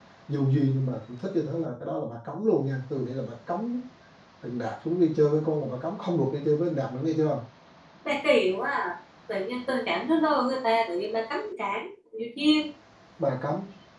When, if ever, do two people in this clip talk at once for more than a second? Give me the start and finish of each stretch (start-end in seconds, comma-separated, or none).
none